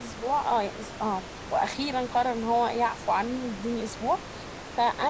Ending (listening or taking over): listening